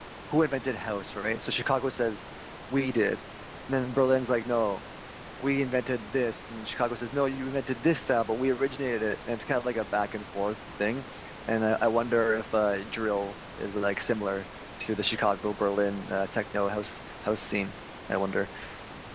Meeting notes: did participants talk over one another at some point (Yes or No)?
No